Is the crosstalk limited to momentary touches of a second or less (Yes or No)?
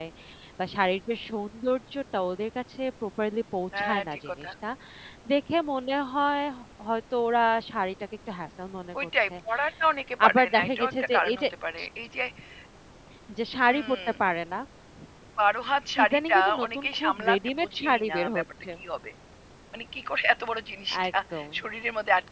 No